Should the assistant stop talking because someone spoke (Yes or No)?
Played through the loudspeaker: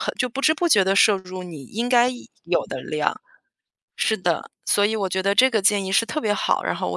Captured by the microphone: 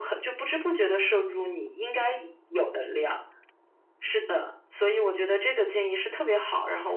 No